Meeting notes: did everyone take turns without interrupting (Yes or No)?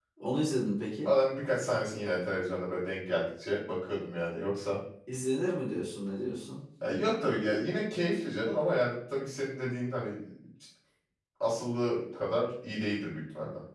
Yes